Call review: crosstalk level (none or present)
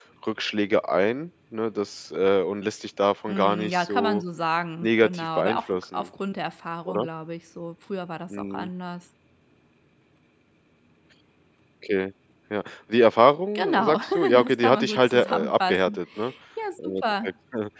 present